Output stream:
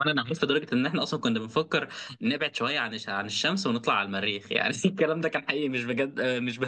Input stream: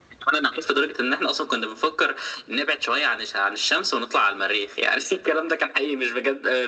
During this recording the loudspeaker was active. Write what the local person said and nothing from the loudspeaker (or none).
none